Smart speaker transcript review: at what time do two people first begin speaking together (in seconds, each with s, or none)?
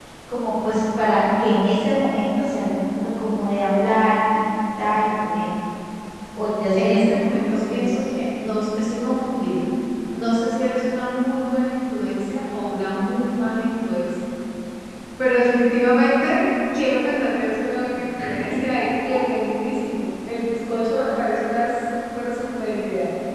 6.8 s